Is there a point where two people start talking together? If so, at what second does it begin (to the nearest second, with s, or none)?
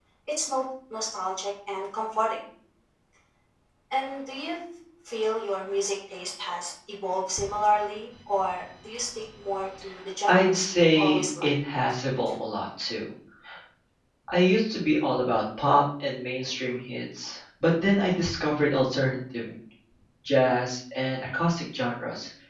10 s